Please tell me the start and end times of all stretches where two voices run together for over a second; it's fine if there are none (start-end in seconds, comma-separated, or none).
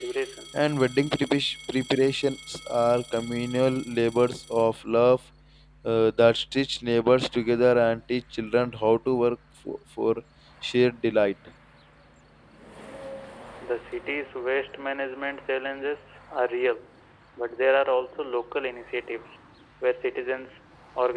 none